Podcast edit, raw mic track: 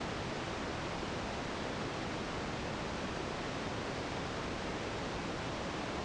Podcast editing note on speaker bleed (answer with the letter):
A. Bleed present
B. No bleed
B